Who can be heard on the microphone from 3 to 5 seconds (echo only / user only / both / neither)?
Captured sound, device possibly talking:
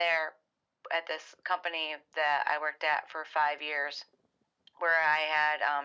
echo only